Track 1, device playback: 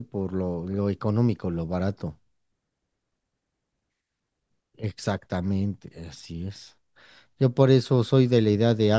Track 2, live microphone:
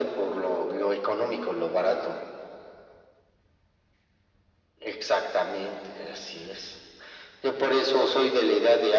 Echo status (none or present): present